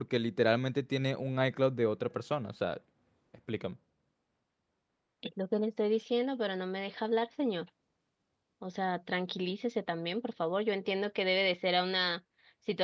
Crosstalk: none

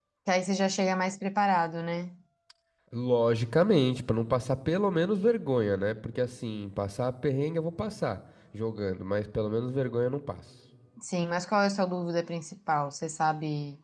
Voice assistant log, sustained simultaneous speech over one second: none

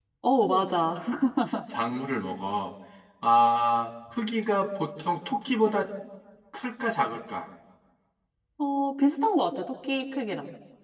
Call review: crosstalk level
none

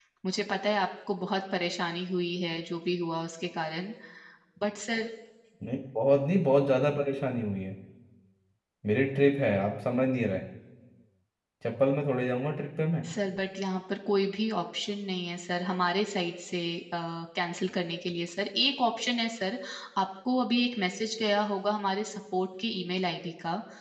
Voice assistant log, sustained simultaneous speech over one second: none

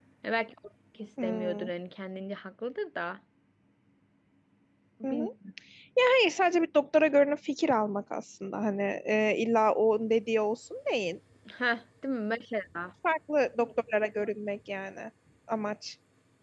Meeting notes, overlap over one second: none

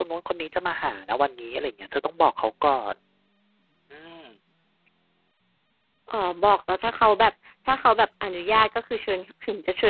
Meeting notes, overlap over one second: none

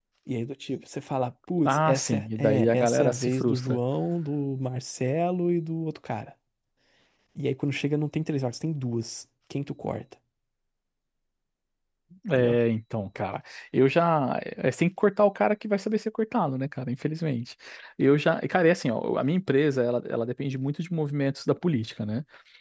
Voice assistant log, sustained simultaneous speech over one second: present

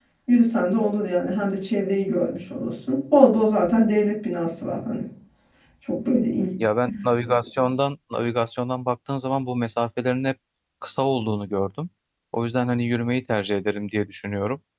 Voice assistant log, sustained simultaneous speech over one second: none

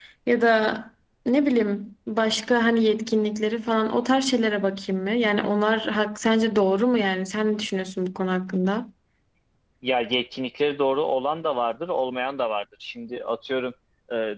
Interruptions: none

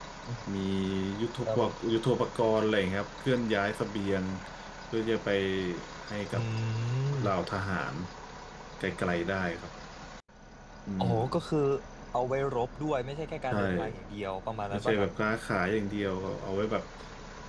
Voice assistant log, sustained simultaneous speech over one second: none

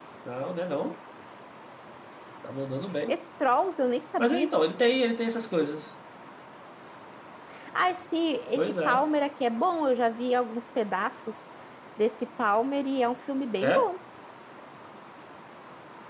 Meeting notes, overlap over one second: none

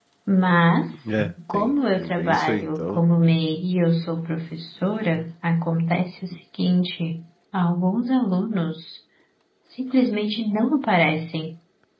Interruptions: present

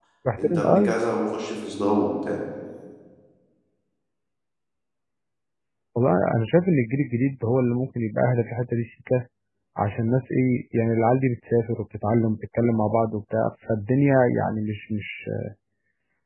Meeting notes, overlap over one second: none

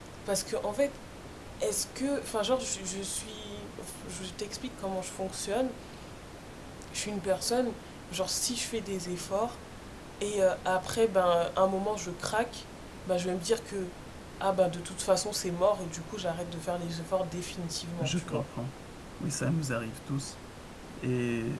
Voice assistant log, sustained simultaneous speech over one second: none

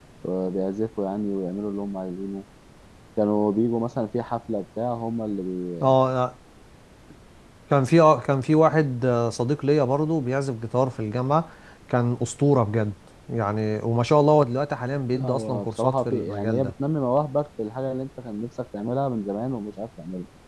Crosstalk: present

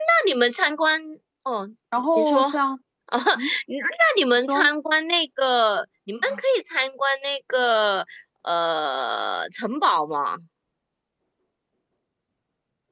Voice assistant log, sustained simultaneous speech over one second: none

